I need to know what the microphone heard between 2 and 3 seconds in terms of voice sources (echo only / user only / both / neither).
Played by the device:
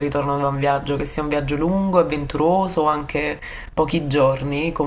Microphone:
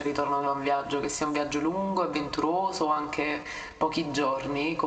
echo only